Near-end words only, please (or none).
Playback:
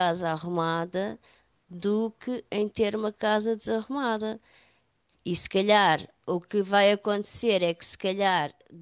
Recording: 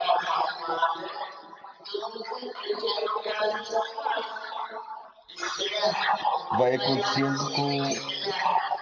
vai acontecendo com,